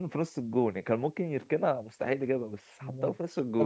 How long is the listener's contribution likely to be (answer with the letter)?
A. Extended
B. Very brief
A